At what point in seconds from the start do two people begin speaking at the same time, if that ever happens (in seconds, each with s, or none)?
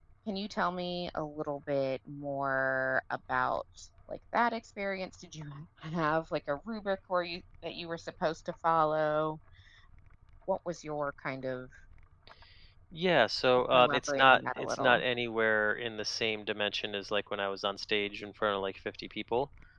13.7 s